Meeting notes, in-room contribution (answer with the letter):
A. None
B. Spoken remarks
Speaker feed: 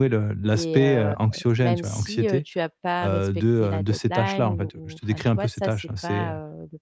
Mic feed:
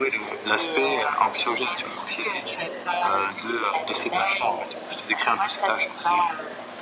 A